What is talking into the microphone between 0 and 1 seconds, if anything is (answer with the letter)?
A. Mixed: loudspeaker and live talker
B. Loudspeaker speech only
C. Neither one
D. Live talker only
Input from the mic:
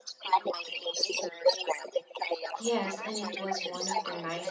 B